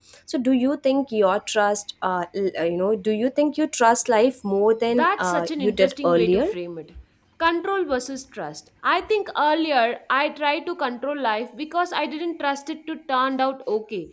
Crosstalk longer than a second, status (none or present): present